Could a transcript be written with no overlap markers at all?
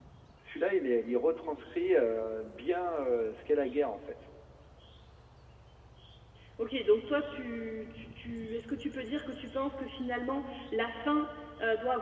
Yes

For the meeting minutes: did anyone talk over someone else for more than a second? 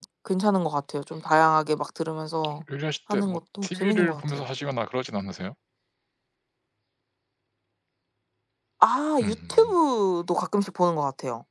Yes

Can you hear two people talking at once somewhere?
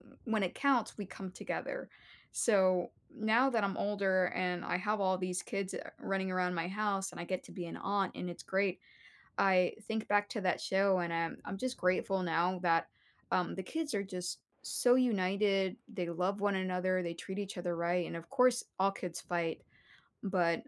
No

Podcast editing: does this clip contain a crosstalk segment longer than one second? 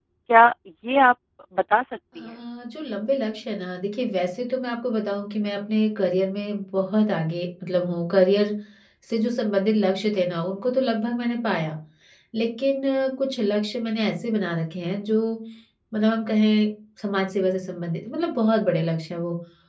No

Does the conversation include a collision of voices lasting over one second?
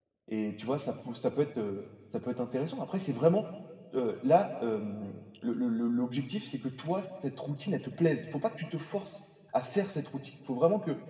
No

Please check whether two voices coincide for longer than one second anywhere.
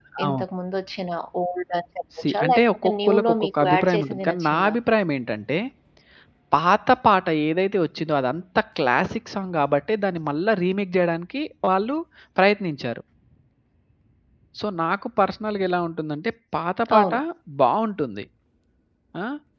Yes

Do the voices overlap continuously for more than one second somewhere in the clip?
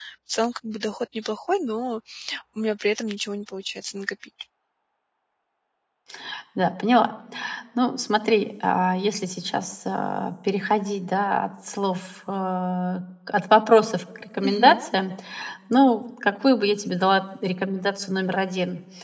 No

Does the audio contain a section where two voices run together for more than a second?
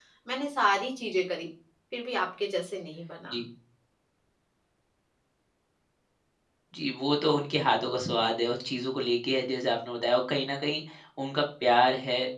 No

